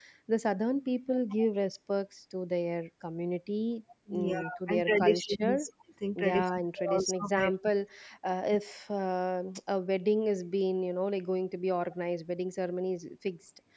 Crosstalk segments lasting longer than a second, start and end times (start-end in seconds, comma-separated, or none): 4.1-5.7, 6.2-7.5